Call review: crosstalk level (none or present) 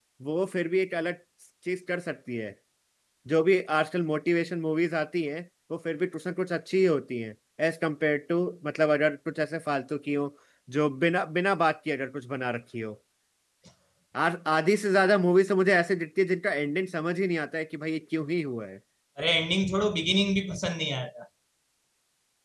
none